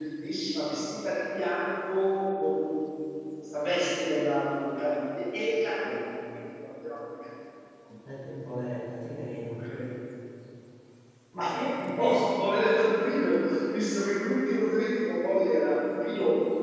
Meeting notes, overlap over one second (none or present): none